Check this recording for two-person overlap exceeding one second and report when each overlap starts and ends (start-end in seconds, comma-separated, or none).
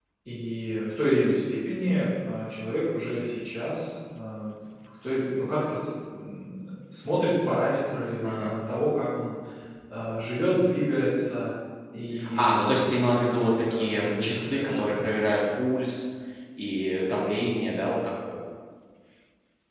12.3-14.8